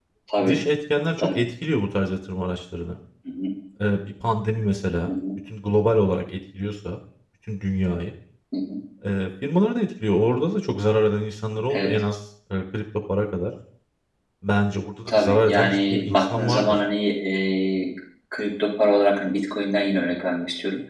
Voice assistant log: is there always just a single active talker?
No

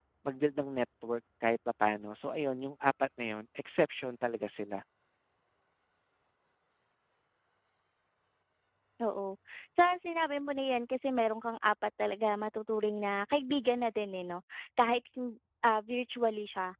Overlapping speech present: No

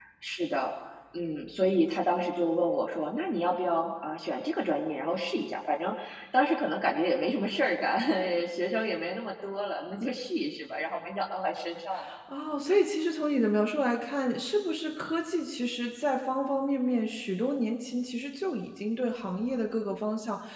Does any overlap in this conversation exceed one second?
No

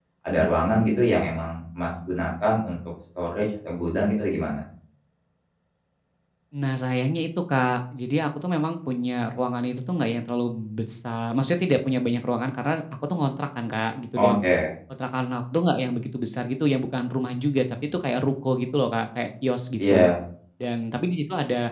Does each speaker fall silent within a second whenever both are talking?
Yes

